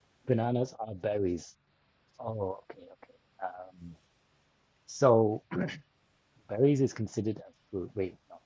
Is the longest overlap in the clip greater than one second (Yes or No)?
No